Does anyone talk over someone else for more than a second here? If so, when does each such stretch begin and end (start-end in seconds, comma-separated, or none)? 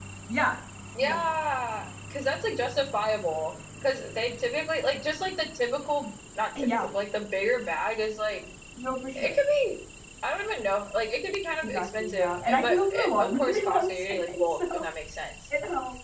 11.6-14.9